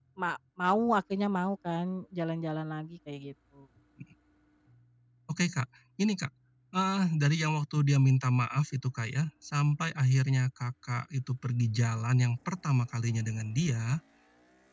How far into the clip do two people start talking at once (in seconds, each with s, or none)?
none